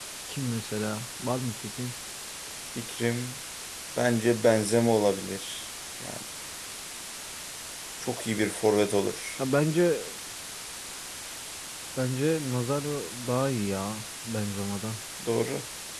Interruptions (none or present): none